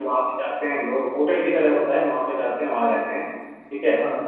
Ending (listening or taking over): listening